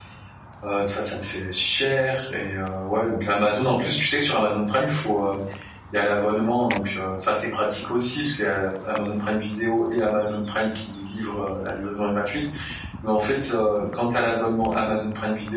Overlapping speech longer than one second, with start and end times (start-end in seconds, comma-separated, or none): none